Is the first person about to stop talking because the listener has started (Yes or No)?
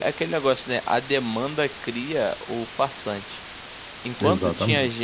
No